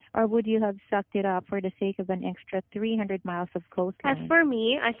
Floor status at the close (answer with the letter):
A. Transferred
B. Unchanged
A